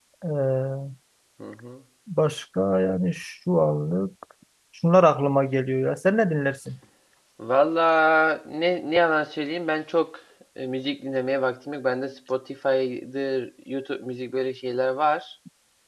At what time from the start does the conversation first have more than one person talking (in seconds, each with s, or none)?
none